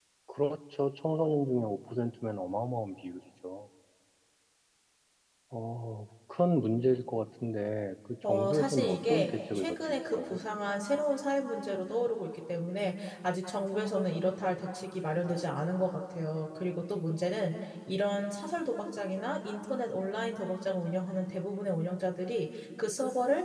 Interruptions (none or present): present